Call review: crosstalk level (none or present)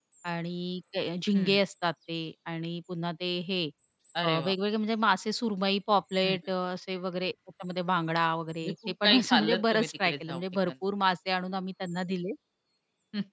present